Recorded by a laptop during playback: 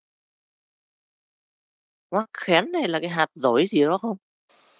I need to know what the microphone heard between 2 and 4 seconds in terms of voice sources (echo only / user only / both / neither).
user only